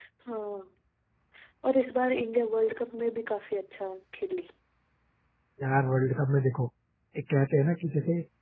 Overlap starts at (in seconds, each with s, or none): none